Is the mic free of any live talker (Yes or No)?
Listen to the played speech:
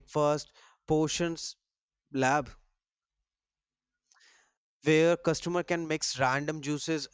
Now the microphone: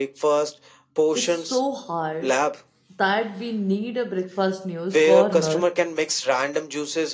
No